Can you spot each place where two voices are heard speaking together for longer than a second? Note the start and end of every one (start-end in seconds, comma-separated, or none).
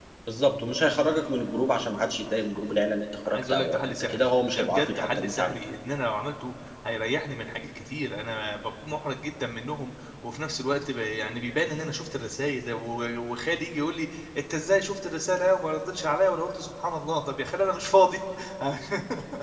3.3-5.5